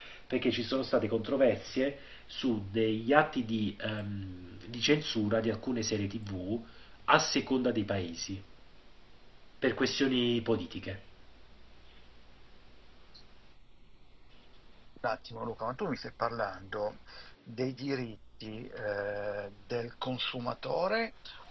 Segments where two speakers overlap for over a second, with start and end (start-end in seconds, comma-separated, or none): none